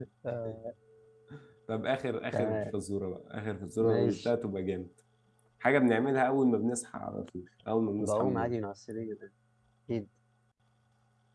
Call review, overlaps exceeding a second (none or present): none